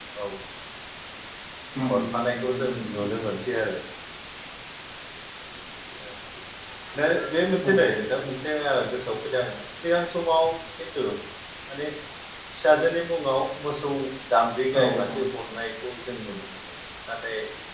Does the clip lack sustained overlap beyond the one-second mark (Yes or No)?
No